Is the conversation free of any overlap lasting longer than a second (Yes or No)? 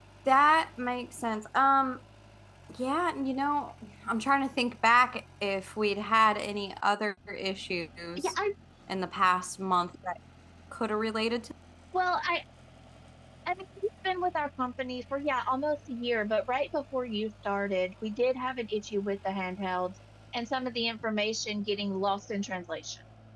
Yes